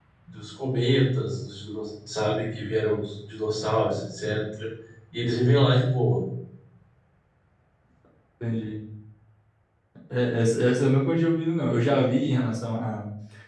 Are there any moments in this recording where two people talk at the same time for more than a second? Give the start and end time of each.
none

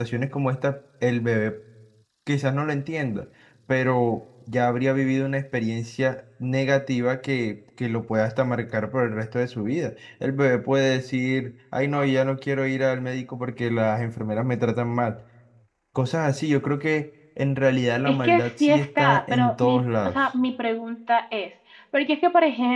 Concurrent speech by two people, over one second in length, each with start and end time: 18.1-20.2

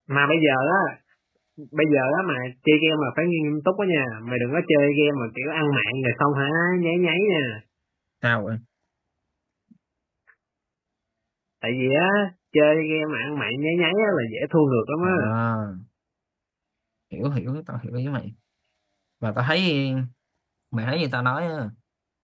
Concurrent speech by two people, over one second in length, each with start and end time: none

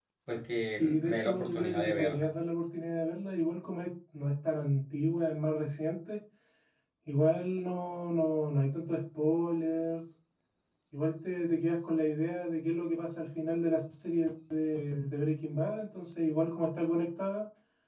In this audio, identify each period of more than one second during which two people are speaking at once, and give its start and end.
0.7-2.3

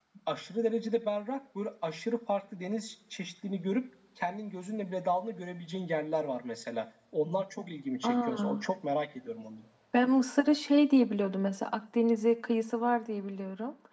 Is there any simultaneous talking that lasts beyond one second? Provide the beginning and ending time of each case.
none

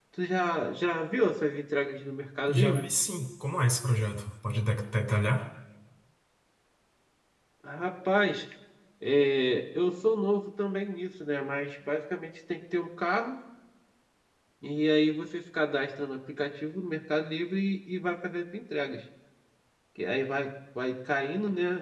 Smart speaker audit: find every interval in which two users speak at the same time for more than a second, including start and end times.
none

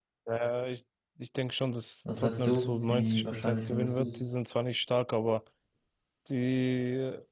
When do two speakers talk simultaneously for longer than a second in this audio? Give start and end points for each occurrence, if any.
2.2-4.1

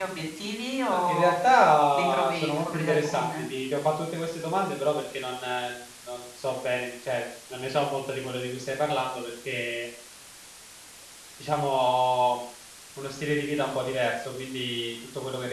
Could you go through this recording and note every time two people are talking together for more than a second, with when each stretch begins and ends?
1.9-3.4

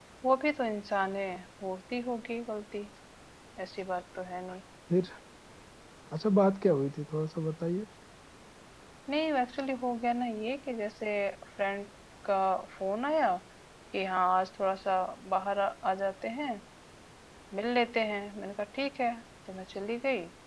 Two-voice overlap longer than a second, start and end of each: none

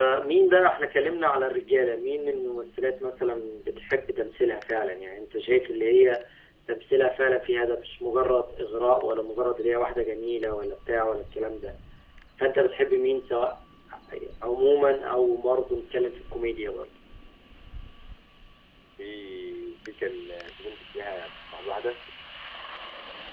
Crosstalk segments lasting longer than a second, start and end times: none

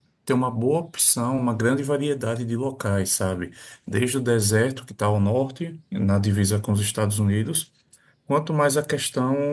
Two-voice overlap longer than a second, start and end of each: none

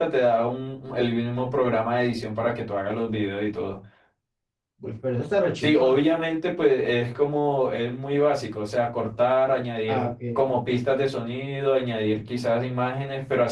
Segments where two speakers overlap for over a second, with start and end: none

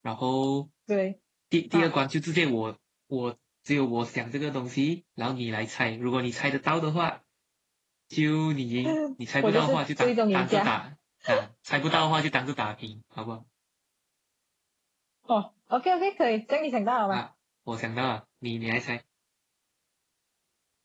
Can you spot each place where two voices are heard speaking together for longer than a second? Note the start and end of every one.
9.4-10.8

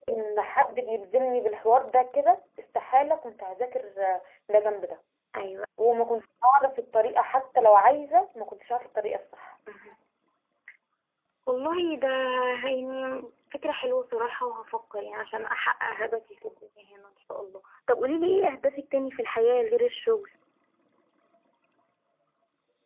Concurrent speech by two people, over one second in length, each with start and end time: none

